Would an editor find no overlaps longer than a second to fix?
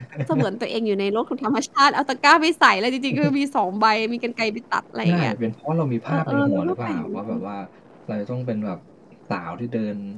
No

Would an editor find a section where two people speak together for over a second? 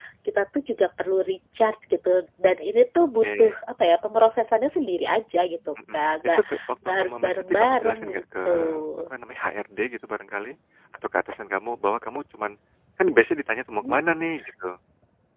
Yes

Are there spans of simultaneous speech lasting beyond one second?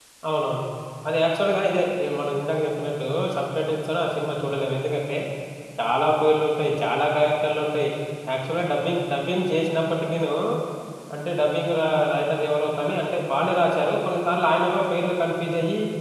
No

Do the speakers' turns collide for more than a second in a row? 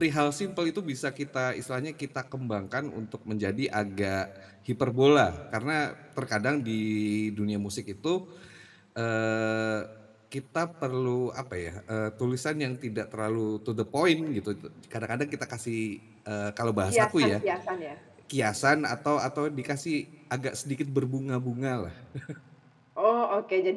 No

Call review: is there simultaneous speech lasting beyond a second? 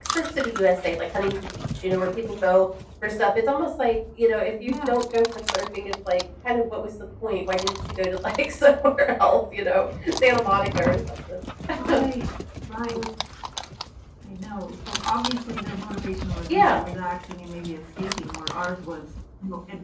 No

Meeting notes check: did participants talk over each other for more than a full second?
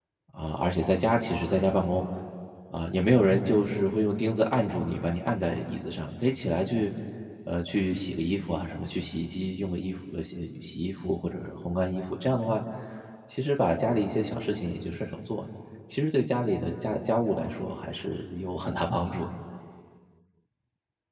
No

